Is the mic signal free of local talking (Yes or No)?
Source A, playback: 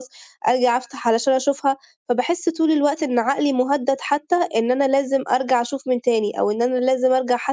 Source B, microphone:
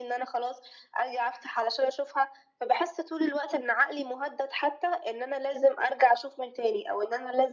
Yes